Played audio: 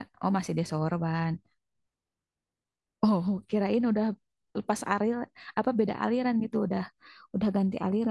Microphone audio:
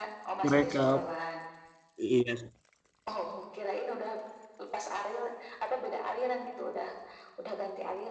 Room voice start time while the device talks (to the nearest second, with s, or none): 0 s